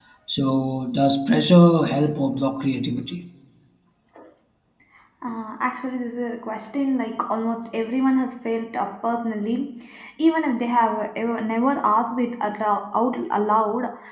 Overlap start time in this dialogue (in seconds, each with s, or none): none